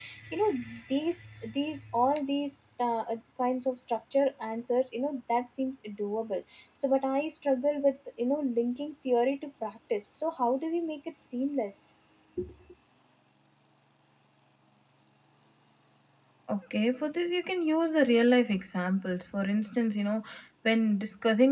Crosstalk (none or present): none